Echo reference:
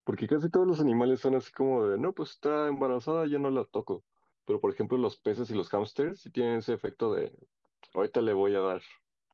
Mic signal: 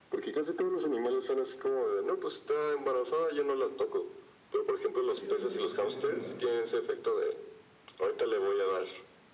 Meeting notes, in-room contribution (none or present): present